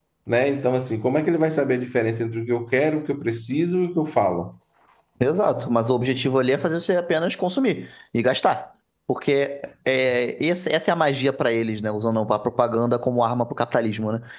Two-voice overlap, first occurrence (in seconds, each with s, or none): none